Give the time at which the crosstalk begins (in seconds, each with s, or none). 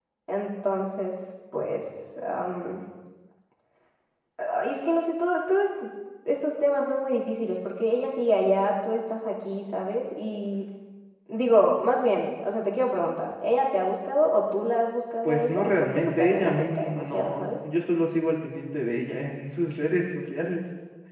15.2 s